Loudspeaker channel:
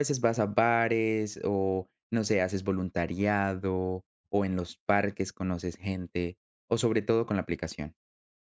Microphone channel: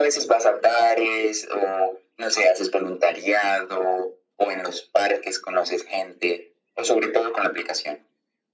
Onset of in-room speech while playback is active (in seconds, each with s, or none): none